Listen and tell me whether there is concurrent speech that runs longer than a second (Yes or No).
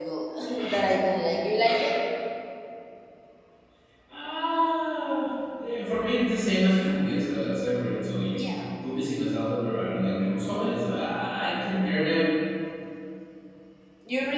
No